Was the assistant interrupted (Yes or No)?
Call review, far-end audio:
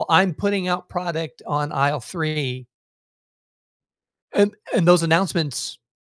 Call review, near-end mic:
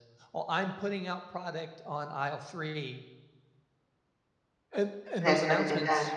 Yes